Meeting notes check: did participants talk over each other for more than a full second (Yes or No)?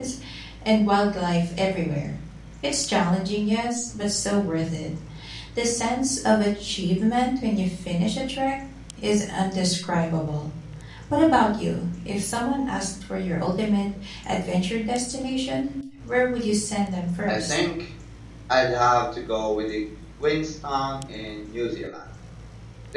No